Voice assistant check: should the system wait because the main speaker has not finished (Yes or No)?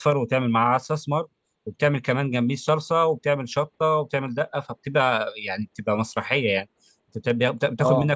Yes